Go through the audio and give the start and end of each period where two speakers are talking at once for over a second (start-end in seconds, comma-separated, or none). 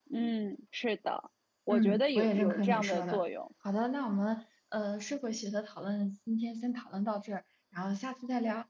1.7-3.2